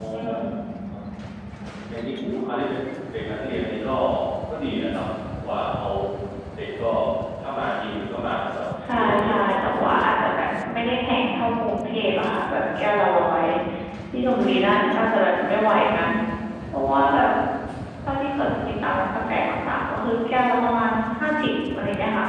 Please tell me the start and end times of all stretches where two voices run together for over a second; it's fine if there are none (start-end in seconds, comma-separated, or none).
8.9-10.2